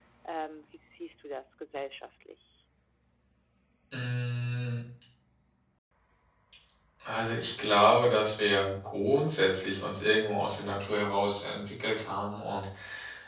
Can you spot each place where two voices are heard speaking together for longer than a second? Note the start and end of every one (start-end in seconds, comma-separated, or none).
none